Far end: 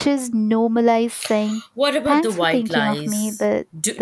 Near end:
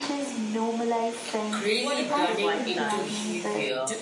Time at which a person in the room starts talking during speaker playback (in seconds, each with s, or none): 1.5 s